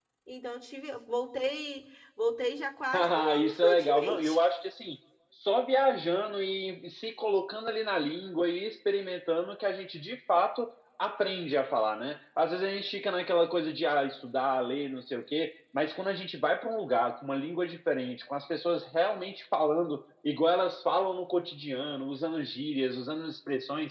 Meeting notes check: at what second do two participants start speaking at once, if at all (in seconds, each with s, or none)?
2.9 s